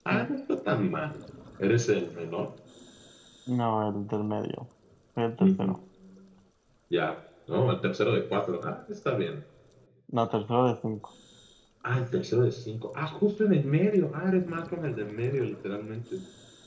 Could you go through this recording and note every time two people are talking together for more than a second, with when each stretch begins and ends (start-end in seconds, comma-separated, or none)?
none